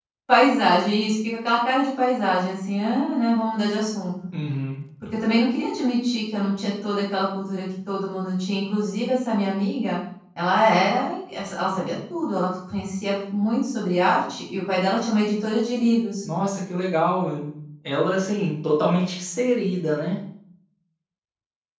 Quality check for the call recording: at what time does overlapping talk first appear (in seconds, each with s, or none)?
none